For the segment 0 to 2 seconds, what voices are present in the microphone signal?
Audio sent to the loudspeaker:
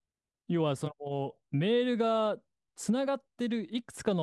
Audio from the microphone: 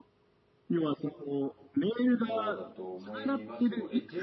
echo only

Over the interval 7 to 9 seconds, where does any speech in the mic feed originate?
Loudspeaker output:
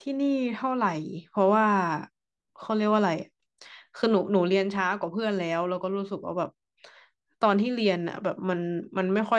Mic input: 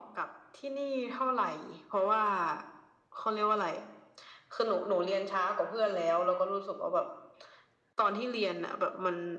echo only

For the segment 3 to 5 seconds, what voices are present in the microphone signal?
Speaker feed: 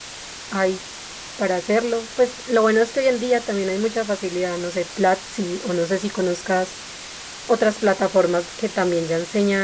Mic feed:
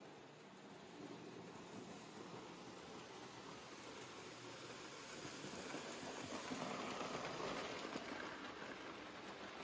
neither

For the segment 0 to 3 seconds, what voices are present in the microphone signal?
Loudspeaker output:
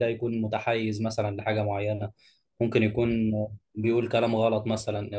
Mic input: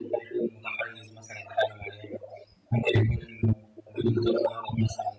echo only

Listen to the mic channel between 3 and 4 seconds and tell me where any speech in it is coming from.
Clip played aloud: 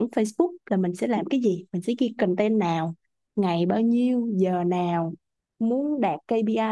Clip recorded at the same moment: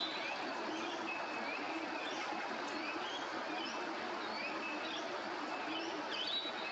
neither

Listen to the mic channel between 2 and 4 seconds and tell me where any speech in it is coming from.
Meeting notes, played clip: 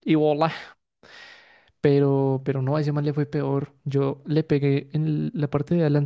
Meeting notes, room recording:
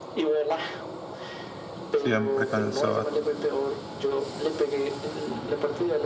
both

